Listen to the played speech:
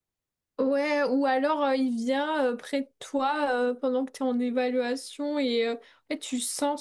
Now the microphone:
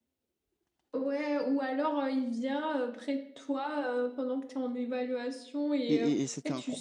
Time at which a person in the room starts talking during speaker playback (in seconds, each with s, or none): 5.9 s